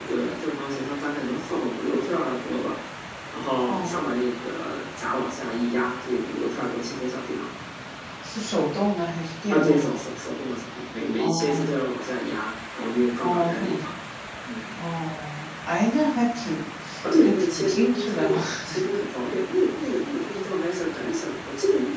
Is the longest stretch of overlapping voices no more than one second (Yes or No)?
No